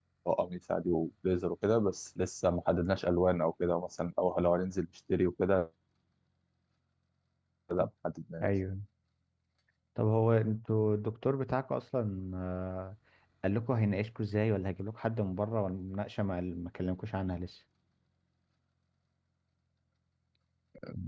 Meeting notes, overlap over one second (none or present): none